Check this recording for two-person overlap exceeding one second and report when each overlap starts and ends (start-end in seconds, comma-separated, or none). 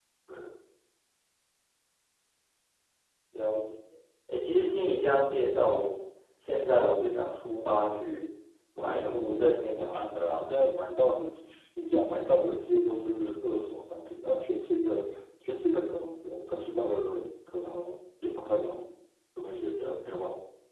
8.8-10.5